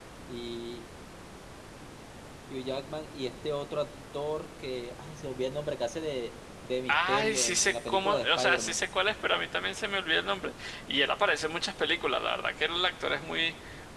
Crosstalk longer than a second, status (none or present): present